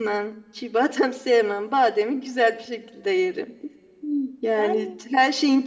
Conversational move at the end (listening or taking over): listening